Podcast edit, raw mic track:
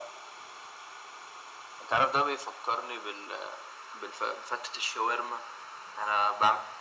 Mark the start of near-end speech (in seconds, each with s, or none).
none